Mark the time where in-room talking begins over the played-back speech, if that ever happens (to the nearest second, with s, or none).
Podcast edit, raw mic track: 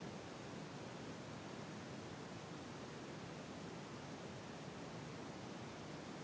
none